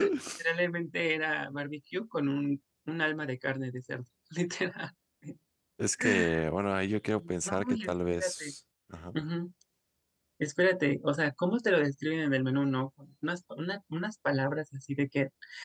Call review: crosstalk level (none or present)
present